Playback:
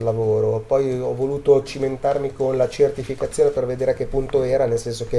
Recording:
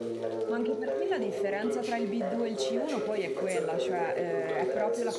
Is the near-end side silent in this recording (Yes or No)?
No